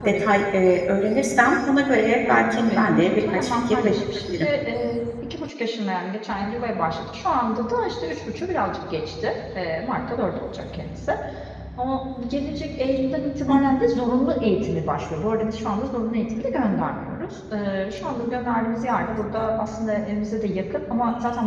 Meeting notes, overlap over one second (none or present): present